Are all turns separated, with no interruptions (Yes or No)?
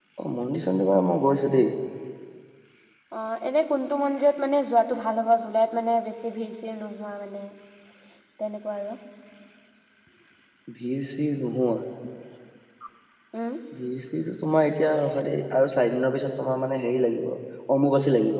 Yes